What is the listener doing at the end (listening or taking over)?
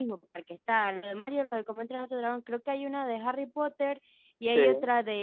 listening